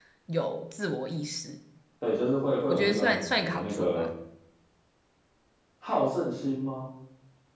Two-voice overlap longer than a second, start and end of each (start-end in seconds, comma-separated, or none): 2.7-4.1